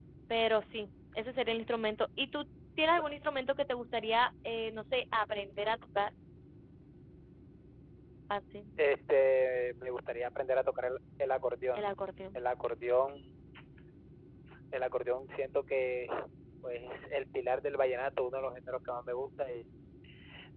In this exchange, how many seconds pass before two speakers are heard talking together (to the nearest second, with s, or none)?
none